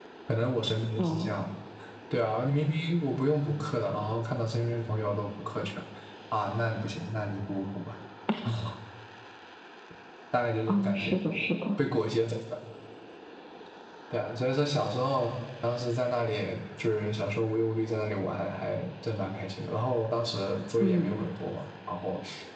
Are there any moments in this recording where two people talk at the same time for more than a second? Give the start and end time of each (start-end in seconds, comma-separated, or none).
none